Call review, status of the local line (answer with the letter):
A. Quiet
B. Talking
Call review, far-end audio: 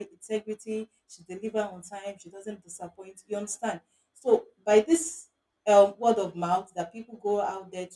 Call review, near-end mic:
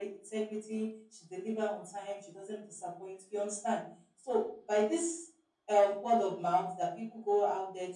A